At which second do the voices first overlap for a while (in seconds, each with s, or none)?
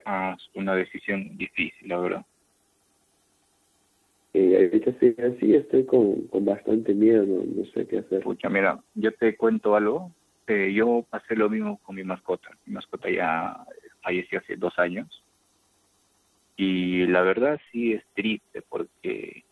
none